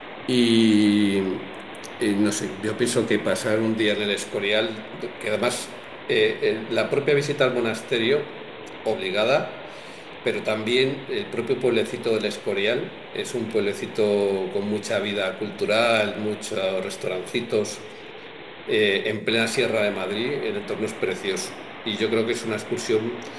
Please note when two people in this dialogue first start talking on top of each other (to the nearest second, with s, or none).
none